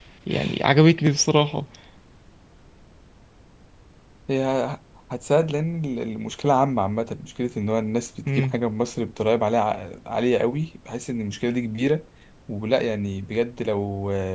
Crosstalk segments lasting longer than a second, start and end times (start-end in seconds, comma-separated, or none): none